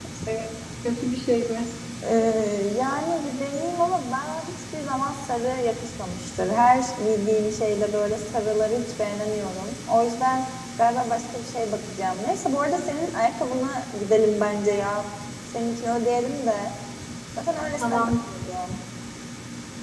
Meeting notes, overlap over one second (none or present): none